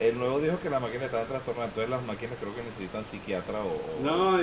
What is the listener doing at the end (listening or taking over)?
taking over